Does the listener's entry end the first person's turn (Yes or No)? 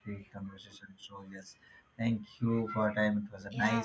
Yes